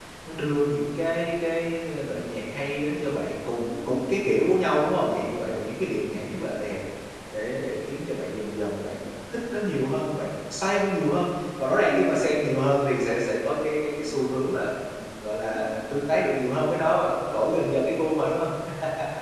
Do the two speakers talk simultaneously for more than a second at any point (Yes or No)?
No